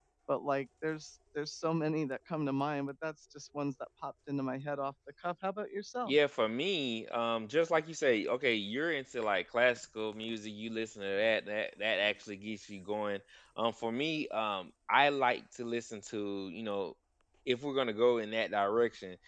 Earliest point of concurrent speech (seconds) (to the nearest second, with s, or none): none